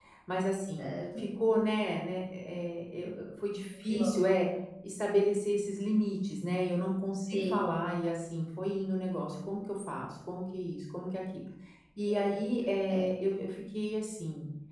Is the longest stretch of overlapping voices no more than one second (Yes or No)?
Yes